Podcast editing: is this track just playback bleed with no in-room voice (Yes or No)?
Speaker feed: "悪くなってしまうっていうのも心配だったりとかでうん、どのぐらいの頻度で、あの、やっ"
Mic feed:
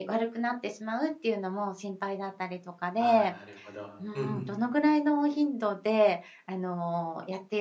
No